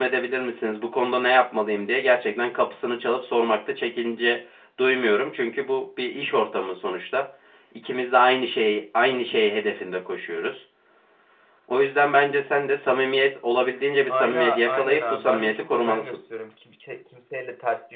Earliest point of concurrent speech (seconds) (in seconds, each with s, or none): 14.1 s